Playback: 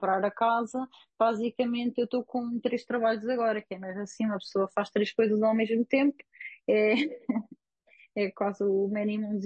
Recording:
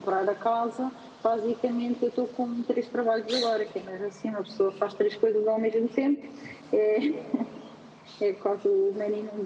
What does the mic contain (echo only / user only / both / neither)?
echo only